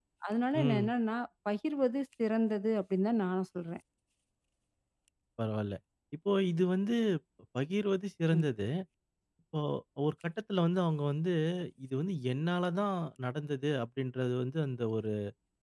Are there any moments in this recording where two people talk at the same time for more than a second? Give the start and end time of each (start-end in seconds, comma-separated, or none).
none